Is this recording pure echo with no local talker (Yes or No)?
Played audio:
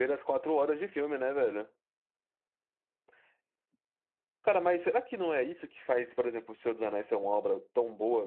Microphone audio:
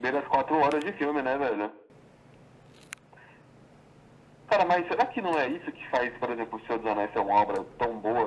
Yes